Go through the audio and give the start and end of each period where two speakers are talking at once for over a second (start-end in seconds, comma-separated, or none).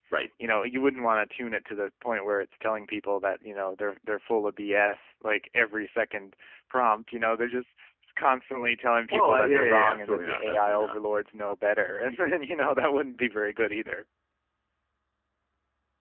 9.1-11.0